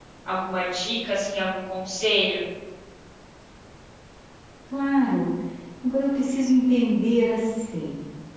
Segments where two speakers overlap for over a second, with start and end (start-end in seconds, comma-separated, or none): none